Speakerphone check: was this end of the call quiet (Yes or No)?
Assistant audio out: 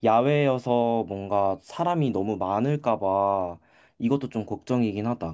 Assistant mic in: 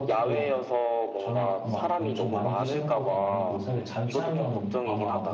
No